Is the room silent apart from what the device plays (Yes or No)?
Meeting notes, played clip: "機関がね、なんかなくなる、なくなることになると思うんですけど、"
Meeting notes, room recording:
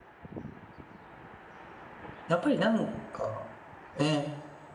No